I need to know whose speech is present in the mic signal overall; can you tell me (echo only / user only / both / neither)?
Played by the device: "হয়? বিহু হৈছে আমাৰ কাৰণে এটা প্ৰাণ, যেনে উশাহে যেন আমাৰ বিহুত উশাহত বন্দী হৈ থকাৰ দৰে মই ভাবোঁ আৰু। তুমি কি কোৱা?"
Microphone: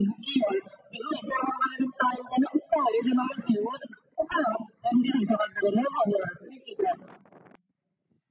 echo only